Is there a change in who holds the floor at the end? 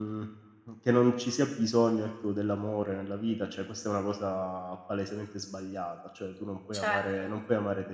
No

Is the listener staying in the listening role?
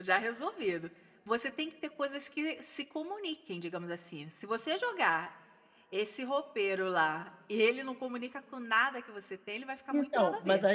No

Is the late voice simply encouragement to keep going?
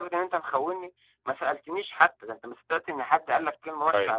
No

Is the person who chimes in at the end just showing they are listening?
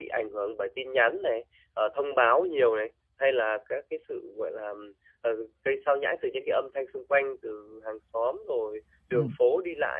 Yes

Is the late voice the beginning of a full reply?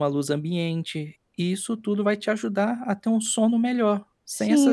Yes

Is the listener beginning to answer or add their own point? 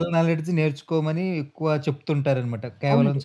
Yes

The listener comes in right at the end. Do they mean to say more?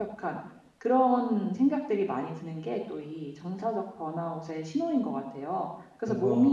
No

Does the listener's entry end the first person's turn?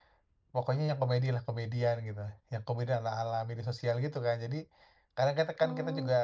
No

